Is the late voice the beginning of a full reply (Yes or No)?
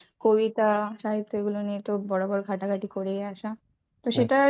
No